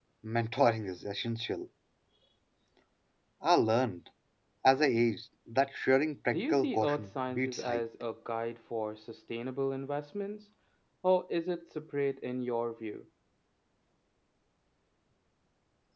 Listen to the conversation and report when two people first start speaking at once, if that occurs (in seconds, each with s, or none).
6.3 s